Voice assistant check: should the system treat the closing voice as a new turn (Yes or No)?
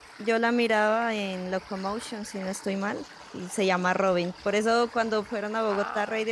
No